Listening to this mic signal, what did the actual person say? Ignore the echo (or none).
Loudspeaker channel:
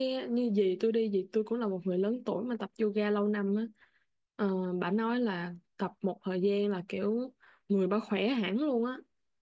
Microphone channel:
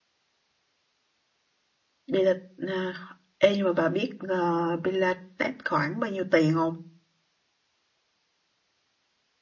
Pilates à, ê nhưng mà bà biết uh, Pilates khoảng bao nhiêu tiền không